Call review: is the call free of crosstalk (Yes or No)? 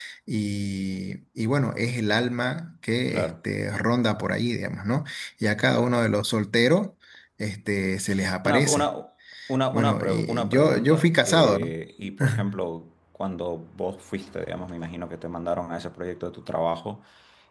No